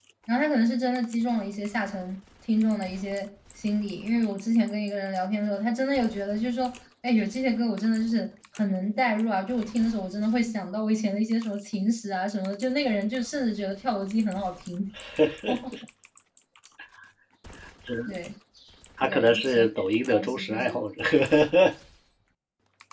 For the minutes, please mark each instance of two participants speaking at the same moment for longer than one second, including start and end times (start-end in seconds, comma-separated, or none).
19.0-20.8